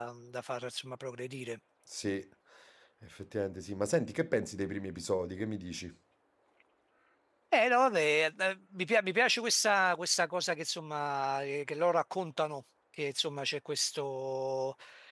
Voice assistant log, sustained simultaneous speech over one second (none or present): none